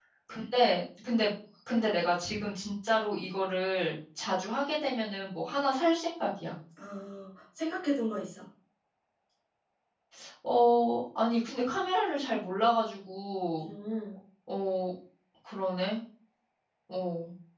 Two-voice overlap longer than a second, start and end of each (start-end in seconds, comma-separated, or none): none